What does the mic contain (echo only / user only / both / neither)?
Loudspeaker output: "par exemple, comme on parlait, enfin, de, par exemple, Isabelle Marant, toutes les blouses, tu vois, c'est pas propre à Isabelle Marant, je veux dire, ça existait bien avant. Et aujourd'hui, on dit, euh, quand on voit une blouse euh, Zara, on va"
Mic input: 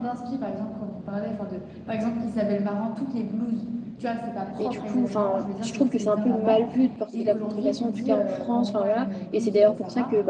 both